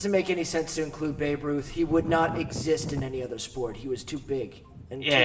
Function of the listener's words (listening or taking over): taking over